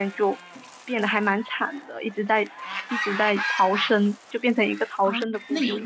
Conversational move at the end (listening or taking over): taking over